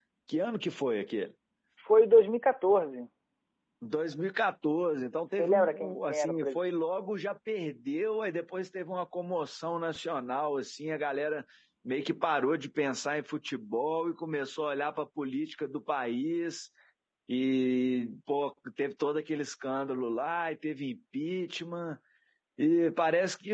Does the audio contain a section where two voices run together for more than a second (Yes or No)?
Yes